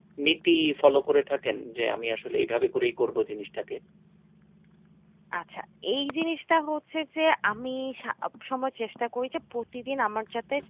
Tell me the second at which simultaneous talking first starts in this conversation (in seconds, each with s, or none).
none